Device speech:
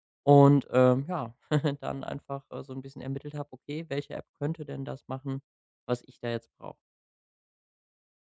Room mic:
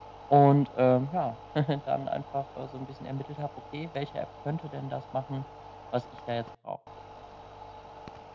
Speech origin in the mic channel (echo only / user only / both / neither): echo only